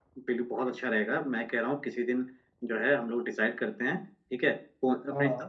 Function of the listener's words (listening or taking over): listening